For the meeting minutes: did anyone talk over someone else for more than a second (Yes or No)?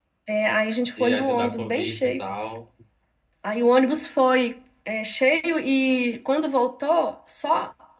Yes